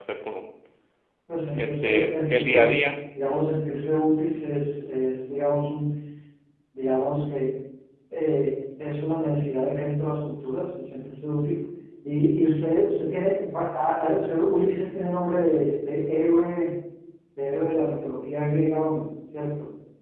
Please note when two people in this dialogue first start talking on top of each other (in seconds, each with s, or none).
1.6 s